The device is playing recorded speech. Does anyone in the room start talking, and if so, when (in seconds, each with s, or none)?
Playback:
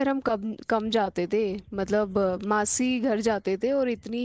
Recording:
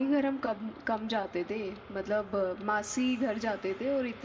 none